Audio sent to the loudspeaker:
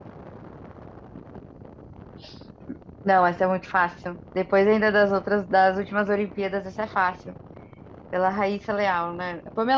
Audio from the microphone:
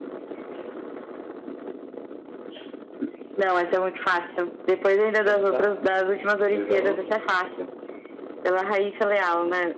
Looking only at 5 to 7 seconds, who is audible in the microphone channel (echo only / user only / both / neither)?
both